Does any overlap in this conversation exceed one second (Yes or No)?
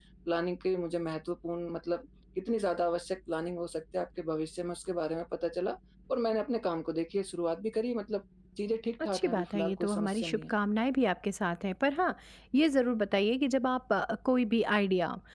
Yes